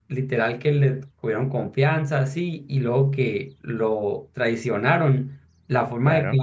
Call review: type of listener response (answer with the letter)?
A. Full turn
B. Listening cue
B